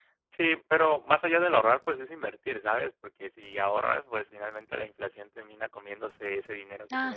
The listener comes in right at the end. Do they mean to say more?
Yes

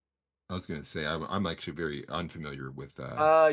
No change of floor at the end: No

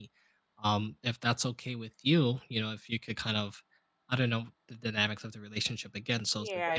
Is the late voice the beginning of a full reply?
Yes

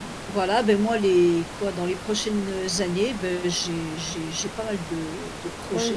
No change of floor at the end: No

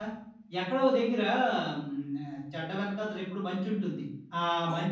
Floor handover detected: No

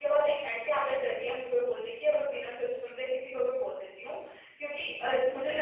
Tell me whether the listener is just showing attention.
Yes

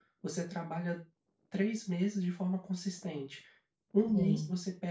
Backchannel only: Yes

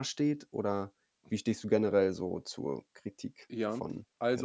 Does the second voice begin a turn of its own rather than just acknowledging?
Yes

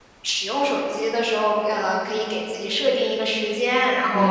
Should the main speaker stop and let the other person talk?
No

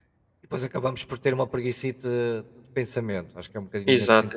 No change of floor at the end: Yes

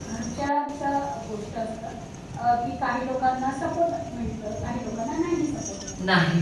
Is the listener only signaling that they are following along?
No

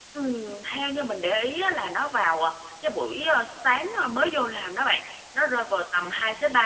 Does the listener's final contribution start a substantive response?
No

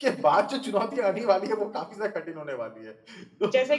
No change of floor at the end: Yes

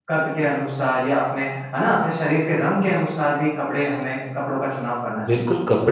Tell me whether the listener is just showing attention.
No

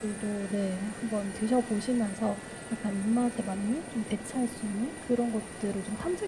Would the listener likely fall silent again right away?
Yes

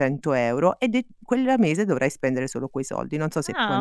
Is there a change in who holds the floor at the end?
Yes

